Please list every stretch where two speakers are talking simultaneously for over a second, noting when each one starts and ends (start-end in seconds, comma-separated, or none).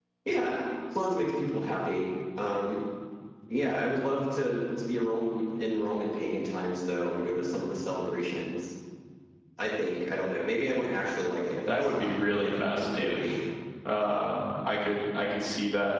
11.7-13.2